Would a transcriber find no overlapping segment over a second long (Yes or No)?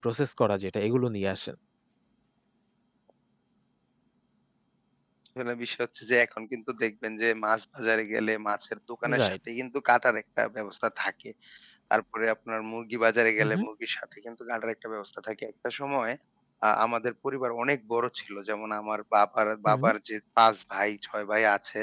Yes